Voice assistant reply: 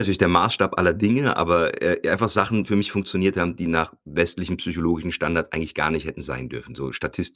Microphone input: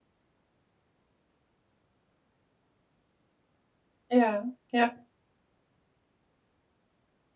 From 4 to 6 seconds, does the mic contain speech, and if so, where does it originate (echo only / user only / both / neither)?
user only